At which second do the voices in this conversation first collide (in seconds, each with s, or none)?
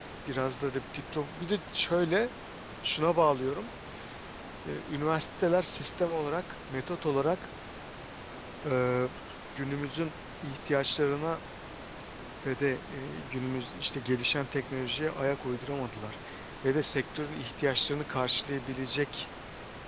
none